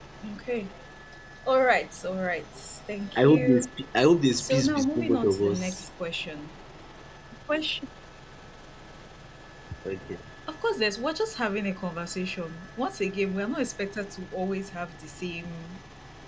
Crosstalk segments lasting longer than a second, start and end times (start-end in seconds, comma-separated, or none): 4.4-5.8